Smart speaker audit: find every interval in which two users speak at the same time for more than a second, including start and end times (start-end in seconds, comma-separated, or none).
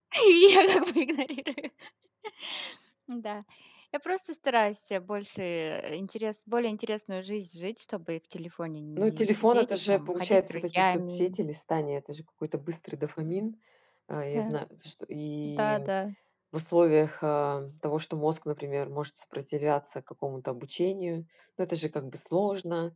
9.0-11.4